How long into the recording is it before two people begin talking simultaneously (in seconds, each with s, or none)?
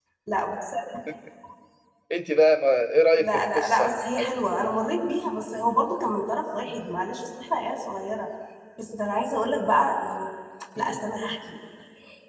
3.2 s